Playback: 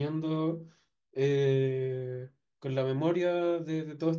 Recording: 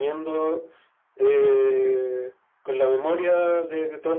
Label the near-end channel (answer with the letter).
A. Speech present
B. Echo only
B